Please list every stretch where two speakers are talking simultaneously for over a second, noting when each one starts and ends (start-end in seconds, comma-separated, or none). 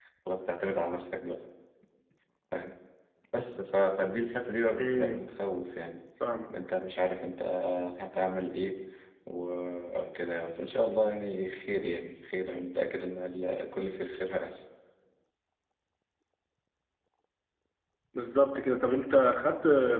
none